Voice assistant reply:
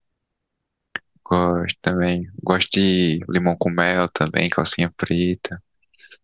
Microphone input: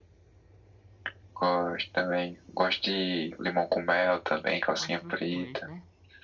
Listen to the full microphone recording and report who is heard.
both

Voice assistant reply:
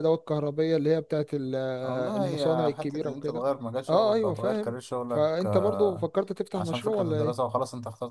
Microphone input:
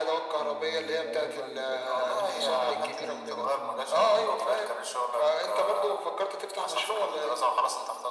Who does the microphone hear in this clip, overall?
both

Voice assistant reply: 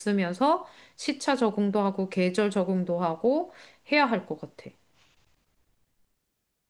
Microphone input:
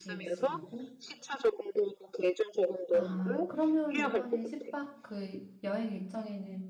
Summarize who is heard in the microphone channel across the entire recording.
both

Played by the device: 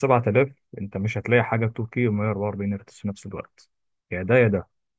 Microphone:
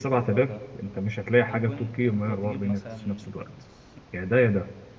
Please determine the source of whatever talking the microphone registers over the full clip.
both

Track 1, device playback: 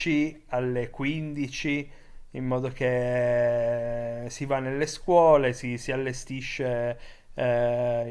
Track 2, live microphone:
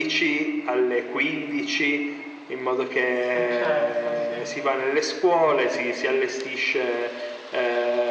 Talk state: both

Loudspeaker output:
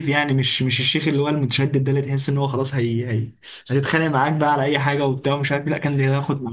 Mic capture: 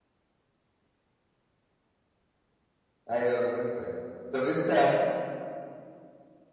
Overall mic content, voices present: user only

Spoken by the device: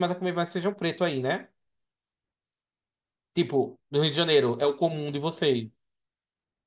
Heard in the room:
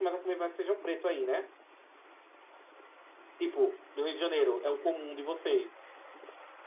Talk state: echo only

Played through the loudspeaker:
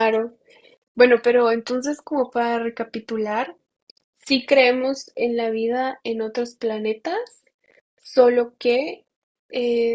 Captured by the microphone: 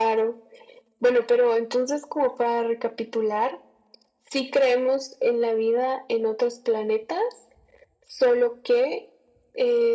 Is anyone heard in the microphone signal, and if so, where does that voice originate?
echo only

